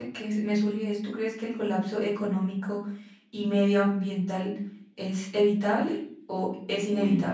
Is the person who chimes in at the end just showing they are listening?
No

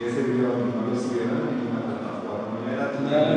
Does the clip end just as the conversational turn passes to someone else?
Yes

